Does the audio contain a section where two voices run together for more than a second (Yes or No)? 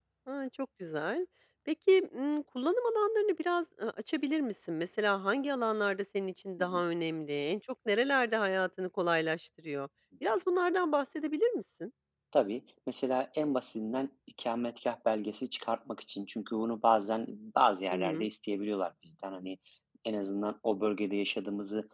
No